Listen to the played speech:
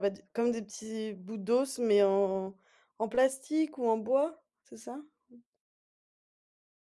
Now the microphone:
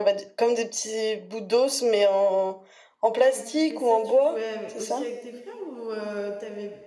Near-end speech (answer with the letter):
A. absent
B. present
B